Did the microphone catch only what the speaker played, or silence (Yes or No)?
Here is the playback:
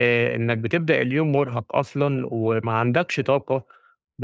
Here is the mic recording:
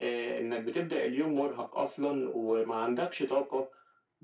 Yes